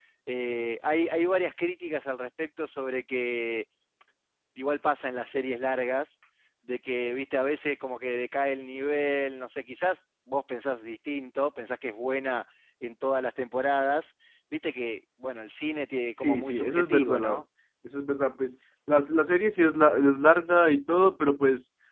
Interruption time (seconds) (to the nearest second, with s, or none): 16 s